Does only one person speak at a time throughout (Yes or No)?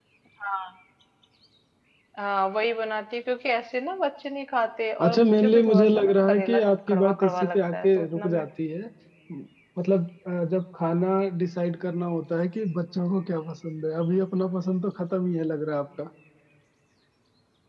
No